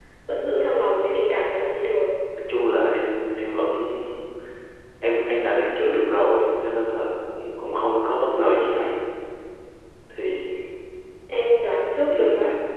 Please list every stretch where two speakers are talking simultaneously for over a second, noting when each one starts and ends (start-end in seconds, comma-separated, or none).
none